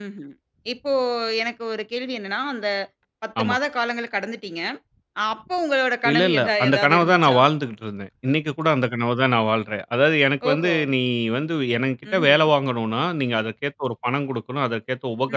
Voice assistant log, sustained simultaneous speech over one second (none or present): present